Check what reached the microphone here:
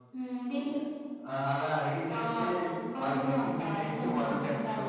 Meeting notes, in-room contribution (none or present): none